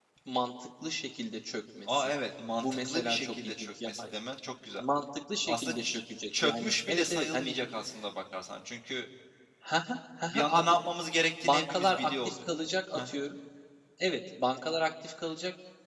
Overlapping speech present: Yes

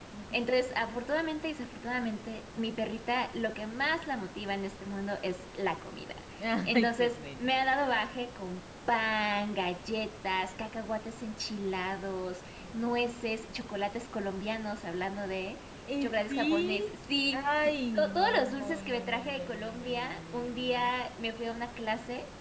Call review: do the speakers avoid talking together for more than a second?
No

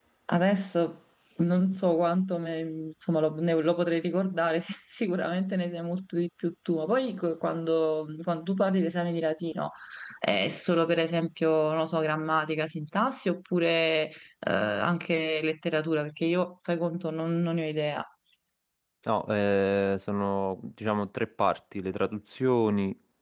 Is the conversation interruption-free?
Yes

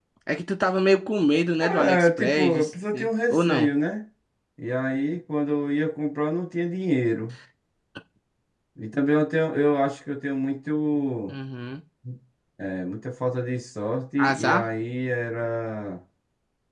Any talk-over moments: Yes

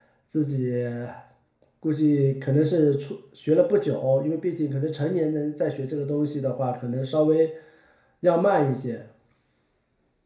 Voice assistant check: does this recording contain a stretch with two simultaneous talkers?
No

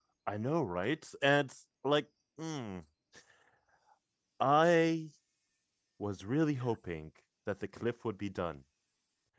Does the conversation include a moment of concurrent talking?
No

